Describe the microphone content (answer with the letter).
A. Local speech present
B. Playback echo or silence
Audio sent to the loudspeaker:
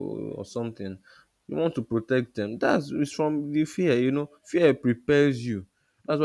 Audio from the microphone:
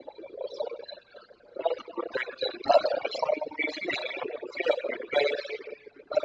B